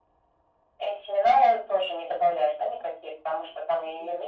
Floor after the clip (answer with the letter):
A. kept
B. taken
A